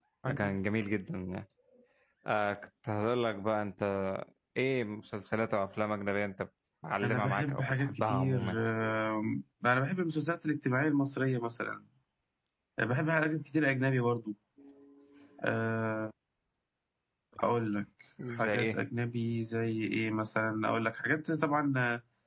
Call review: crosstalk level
present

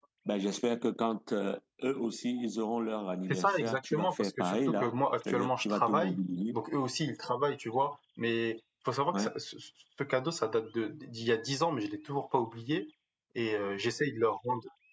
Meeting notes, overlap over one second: present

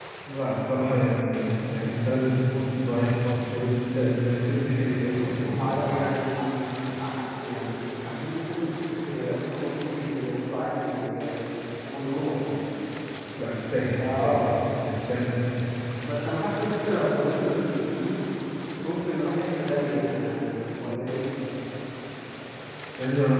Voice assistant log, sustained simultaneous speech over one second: none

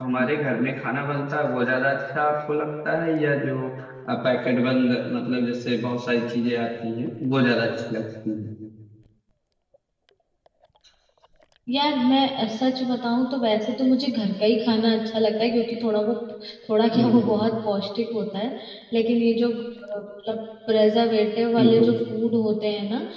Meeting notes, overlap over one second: none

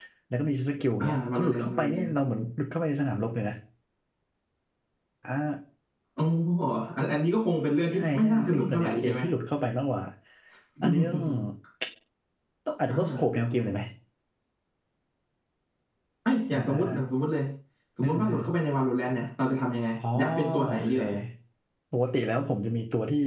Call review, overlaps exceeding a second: present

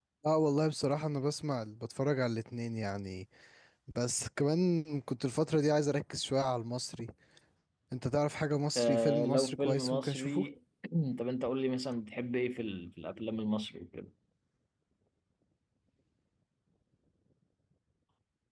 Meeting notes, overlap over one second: present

